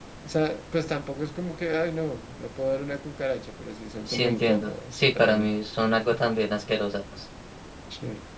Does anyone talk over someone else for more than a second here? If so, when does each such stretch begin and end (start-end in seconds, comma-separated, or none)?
4.1-5.5